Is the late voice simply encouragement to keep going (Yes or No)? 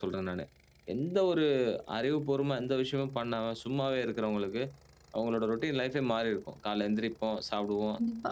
Yes